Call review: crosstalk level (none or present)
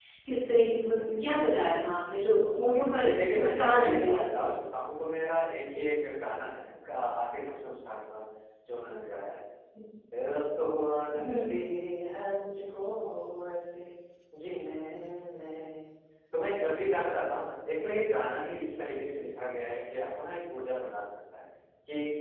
present